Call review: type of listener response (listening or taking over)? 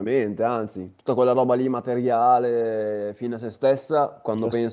listening